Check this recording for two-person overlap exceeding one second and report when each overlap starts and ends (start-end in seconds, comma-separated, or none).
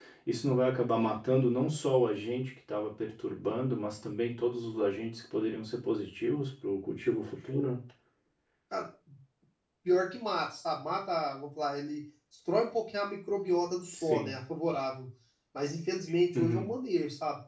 none